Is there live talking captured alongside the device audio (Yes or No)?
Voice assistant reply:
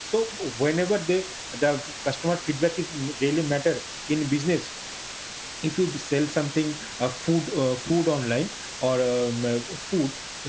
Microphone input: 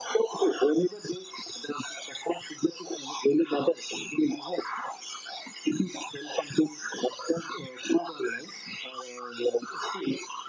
No